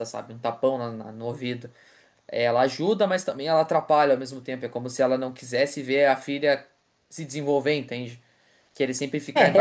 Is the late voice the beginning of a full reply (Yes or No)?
Yes